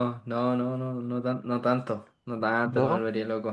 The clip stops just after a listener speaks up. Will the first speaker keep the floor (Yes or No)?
Yes